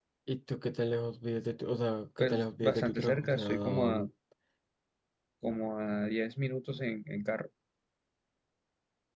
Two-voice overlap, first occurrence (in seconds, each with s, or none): 2.2 s